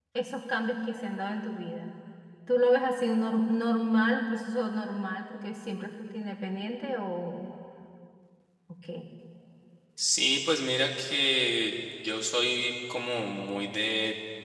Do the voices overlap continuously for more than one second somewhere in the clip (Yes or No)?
No